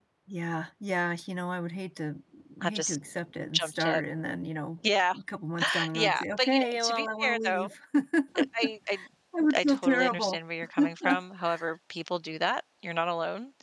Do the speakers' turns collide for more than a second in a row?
Yes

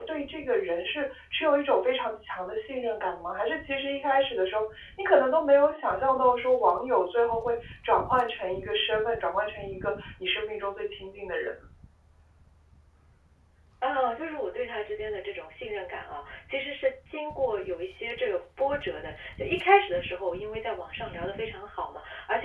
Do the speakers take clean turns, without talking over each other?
Yes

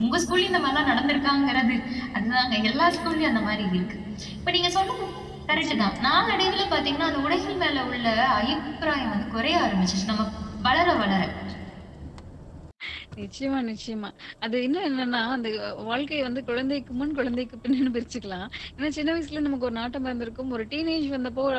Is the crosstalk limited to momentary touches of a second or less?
Yes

